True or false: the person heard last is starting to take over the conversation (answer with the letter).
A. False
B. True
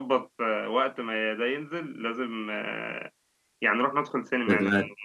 A